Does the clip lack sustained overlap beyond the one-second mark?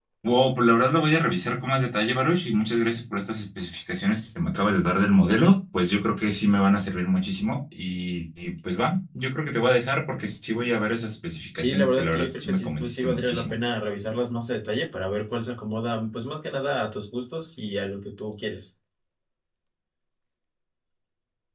No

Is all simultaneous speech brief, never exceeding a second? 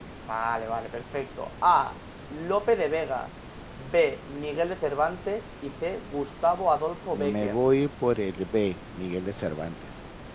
Yes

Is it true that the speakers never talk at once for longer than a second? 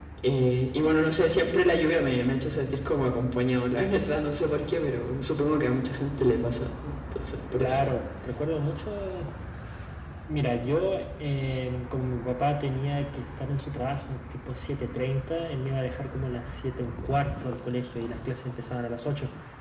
Yes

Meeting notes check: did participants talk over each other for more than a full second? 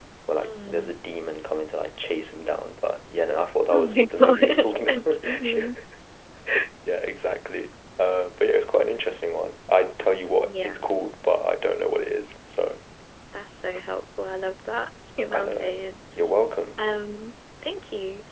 Yes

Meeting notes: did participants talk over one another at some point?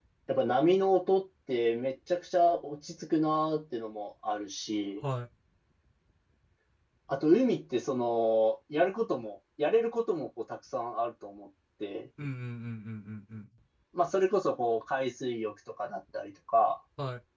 No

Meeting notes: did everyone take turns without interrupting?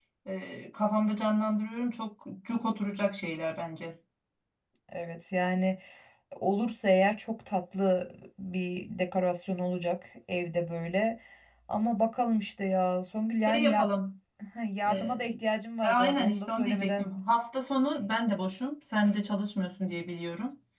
No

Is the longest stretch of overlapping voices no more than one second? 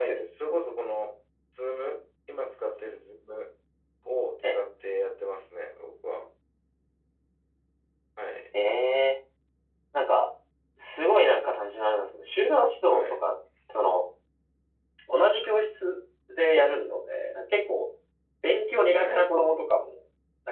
Yes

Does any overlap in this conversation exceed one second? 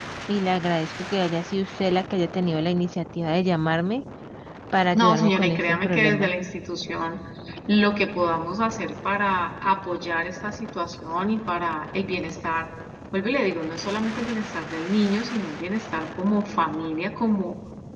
Yes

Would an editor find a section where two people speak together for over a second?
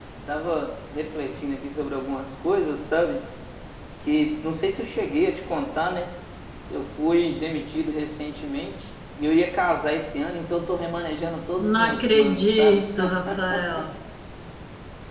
Yes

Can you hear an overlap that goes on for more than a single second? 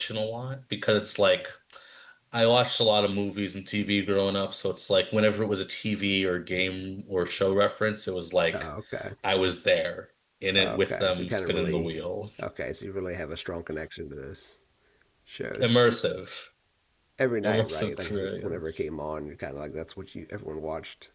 Yes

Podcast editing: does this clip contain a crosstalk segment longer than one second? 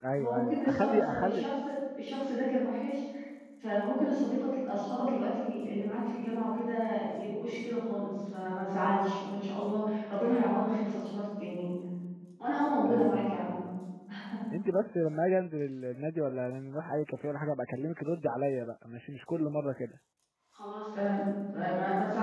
Yes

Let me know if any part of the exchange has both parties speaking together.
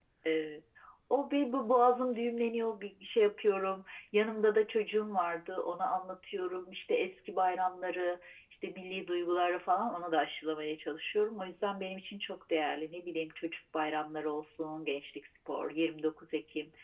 No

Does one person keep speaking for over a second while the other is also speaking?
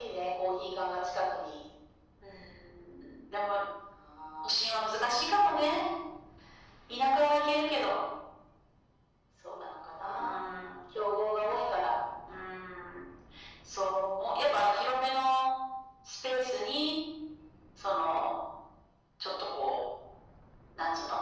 No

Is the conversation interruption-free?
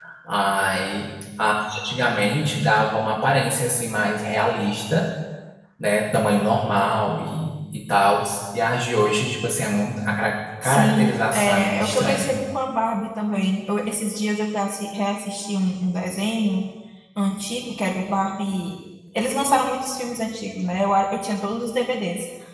No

